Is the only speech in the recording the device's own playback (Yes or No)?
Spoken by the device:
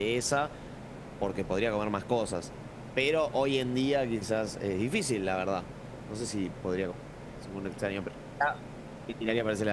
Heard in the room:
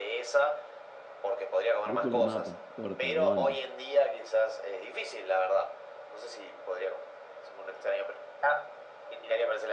No